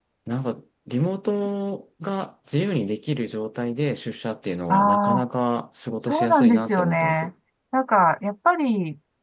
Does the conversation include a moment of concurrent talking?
Yes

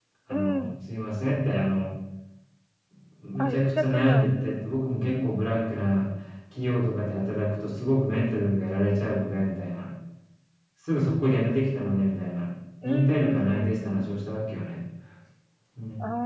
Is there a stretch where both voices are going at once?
Yes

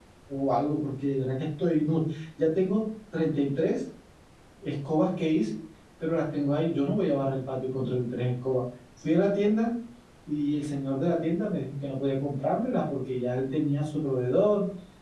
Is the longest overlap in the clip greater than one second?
No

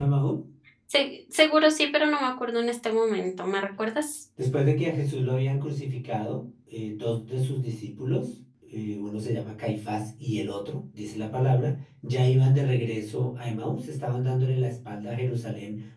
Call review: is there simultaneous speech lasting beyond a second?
No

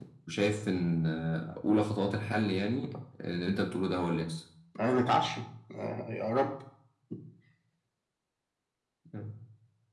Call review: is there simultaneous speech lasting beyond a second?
No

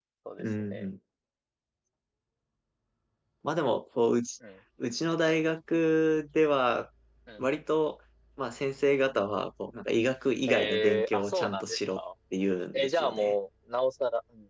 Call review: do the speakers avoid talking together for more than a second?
No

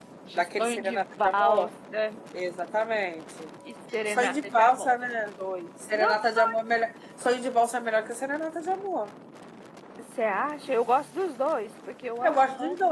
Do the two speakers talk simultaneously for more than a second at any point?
Yes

